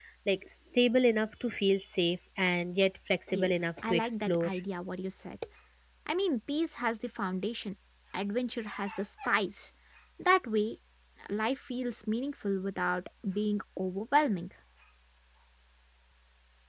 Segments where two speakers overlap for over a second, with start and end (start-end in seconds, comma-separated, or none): 3.3-4.5